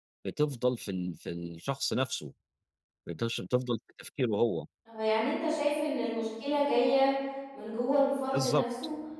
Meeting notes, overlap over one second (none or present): none